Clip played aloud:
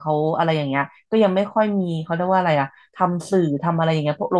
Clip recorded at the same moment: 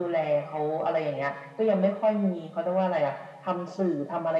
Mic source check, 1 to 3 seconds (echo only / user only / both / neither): echo only